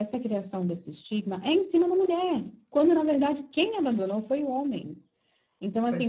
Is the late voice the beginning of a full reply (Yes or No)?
No